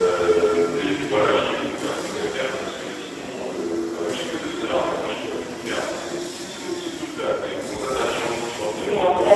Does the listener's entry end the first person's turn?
Yes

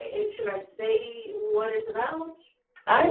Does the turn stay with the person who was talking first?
No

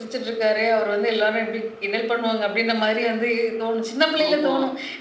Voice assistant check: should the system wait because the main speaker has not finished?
Yes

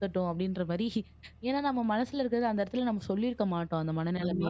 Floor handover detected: Yes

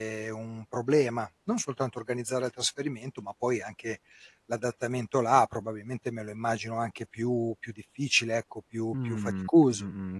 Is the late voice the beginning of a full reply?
Yes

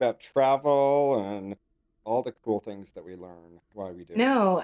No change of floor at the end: No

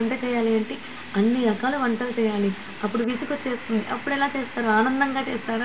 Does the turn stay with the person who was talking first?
No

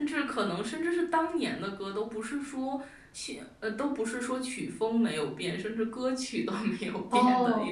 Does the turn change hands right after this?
Yes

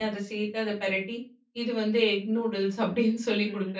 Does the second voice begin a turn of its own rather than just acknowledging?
Yes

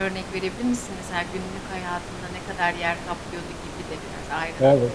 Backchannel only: No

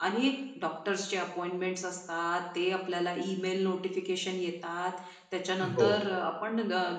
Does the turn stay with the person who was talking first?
Yes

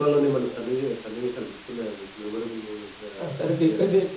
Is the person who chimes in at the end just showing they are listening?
No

